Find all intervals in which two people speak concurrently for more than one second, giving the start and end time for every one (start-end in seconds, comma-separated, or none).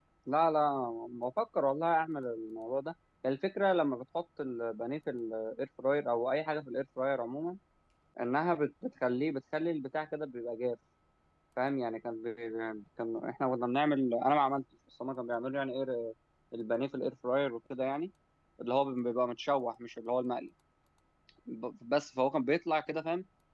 none